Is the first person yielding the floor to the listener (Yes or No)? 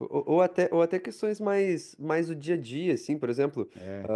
No